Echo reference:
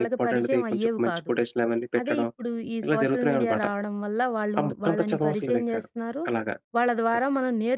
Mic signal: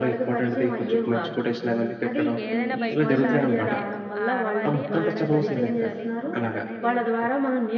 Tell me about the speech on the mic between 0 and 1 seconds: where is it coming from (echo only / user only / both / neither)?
echo only